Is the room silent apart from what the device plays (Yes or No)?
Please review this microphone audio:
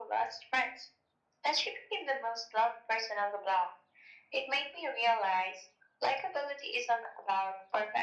Yes